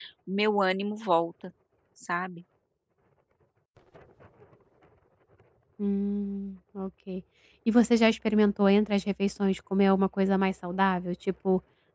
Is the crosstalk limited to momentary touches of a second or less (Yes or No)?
Yes